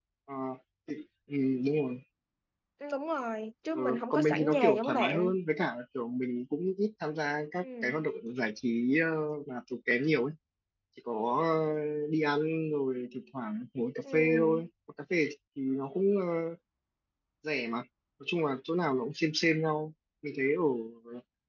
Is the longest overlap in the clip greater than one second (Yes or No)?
Yes